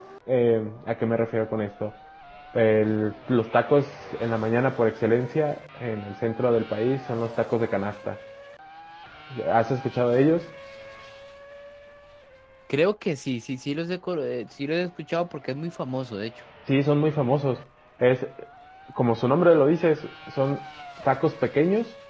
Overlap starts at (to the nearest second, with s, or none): none